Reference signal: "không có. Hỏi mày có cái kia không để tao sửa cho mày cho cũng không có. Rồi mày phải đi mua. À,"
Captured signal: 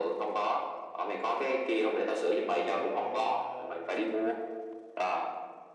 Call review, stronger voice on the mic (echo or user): echo